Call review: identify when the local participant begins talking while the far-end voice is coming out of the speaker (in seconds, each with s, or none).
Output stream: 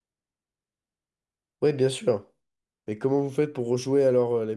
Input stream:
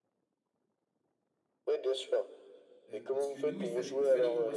2.9 s